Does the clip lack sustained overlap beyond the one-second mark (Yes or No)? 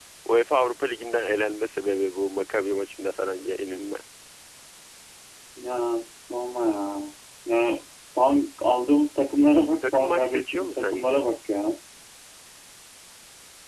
No